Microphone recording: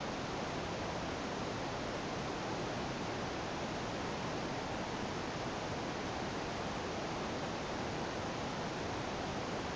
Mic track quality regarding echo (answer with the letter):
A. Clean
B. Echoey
A